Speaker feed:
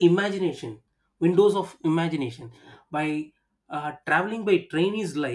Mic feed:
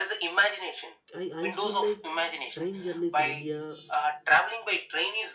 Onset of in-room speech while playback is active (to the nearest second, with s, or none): 1 s